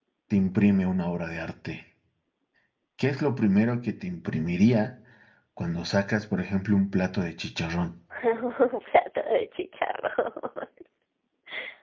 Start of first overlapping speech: none

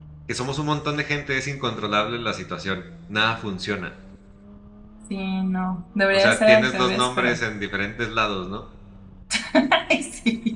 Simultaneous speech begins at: 6.1 s

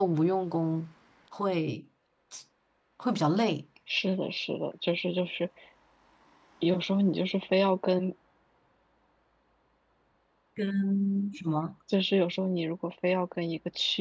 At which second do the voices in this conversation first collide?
none

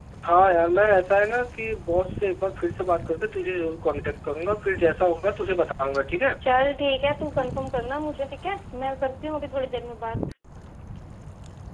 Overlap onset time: none

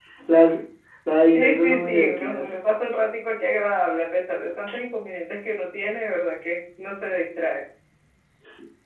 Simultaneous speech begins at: 1.3 s

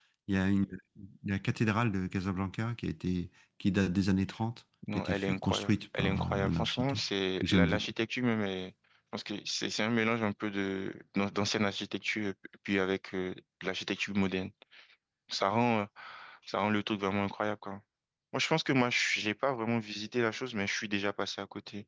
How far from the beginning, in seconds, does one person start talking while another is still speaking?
4.8 s

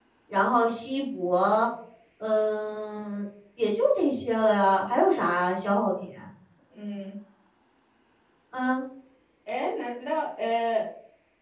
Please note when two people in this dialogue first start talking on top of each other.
none

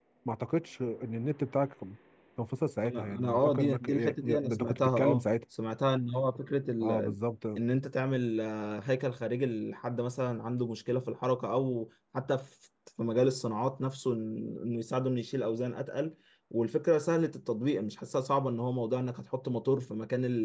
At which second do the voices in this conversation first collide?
2.9 s

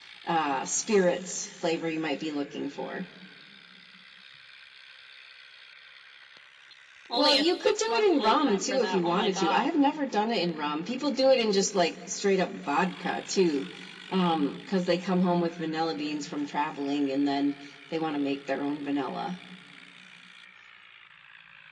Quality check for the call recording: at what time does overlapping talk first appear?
7.1 s

